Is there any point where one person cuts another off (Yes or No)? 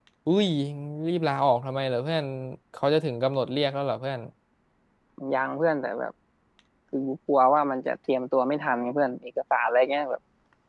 No